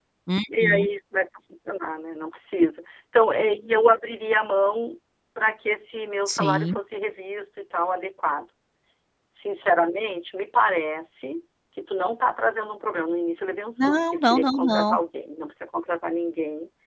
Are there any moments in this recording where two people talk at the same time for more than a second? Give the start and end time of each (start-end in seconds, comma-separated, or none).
13.8-15.0